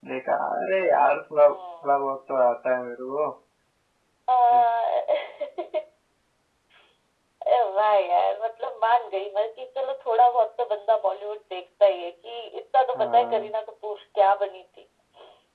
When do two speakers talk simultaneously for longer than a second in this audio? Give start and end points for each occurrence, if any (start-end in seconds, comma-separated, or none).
none